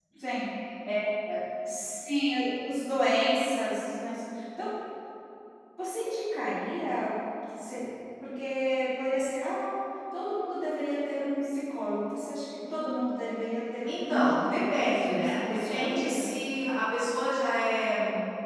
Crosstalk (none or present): present